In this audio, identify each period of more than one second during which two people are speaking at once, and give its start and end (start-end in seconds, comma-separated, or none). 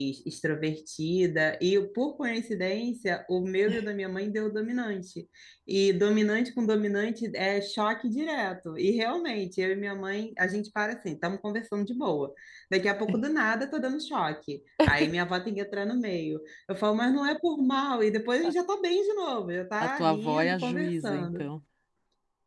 19.8-21.5